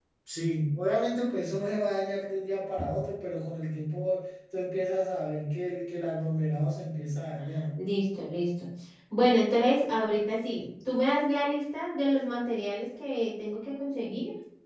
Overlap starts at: none

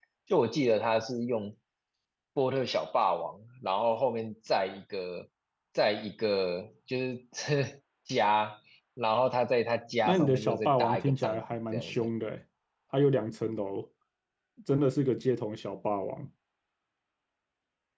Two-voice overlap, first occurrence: 10.1 s

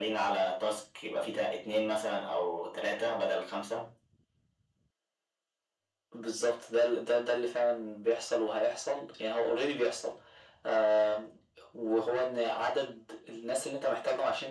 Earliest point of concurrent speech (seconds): none

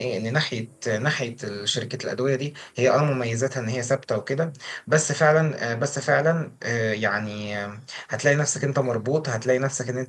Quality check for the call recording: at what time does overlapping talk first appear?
none

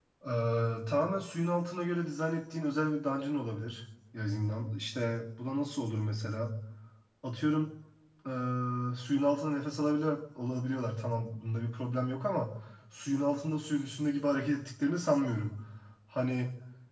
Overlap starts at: none

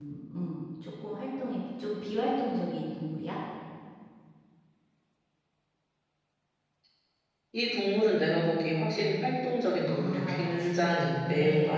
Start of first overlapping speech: 9.8 s

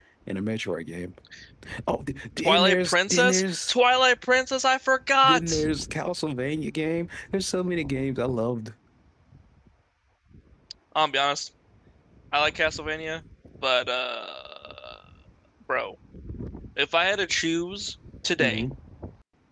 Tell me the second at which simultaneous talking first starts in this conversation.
2.4 s

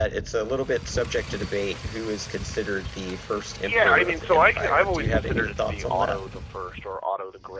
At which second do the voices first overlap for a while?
3.6 s

